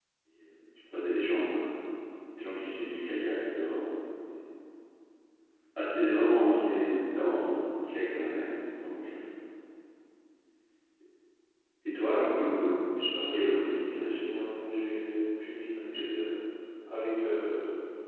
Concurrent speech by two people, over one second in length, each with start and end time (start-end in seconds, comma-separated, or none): 13.3-14.7